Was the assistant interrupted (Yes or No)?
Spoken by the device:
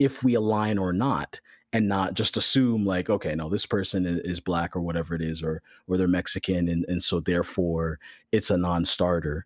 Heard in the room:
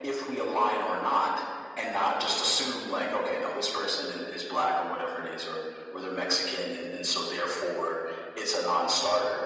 No